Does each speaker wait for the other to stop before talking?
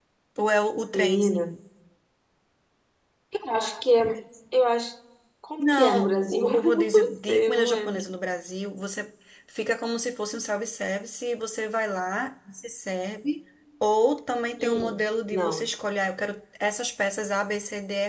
No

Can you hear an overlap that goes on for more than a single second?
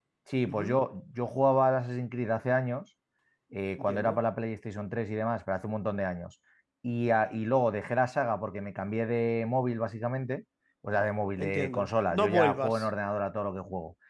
Yes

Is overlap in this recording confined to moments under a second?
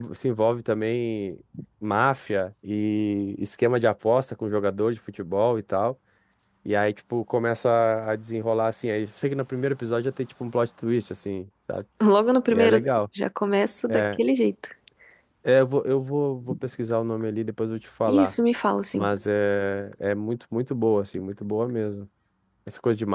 Yes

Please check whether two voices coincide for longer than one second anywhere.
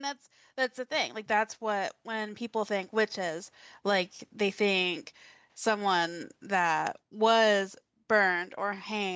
No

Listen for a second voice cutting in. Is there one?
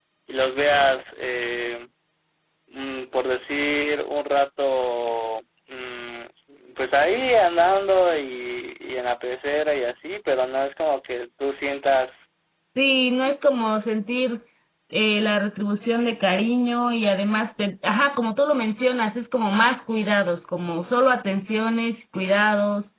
No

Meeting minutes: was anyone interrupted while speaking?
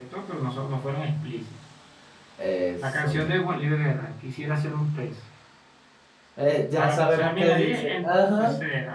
Yes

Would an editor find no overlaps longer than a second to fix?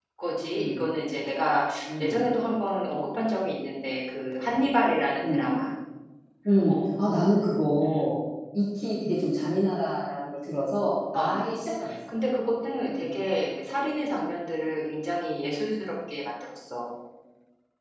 Yes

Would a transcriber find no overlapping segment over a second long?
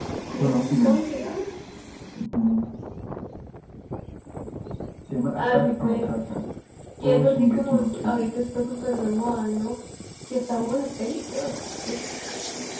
No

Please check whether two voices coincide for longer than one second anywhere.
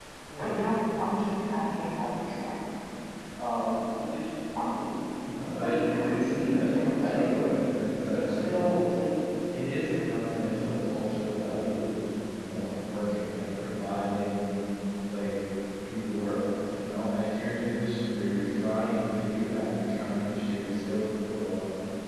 Yes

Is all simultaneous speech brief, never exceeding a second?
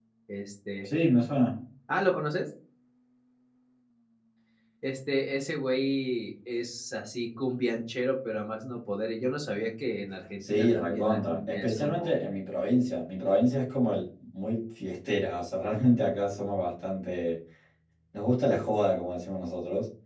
No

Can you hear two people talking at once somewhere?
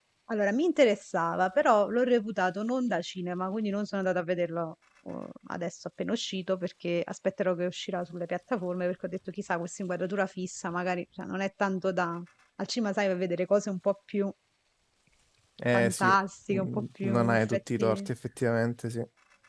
Yes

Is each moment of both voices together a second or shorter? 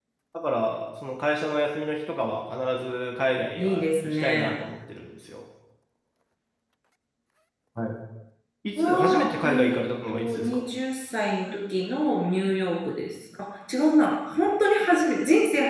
No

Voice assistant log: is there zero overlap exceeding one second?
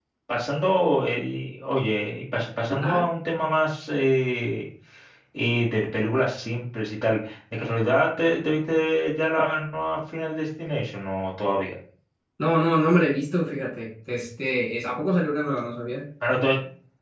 Yes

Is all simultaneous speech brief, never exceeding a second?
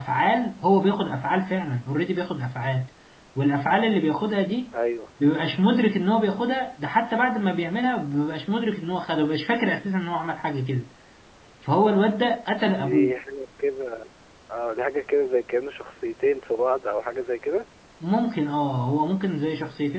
Yes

